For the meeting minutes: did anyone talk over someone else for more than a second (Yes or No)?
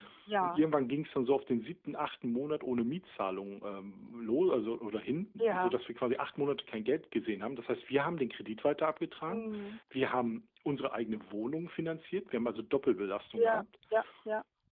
No